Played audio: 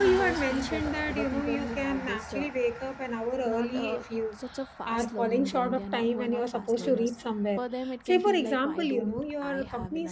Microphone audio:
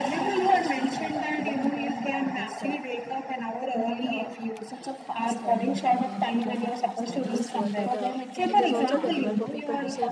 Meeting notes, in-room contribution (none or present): present